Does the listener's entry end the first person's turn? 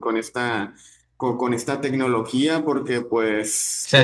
Yes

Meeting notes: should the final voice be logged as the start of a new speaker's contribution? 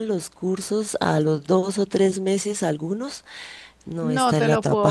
Yes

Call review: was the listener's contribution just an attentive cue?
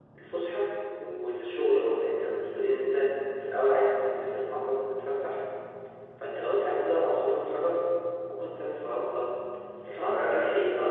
Yes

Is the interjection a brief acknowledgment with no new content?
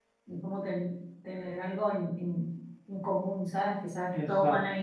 Yes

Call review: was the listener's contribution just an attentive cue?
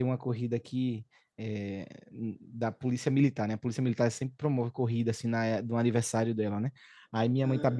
Yes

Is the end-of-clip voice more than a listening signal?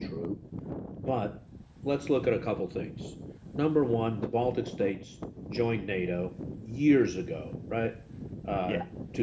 No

